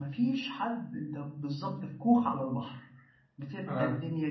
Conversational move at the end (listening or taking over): listening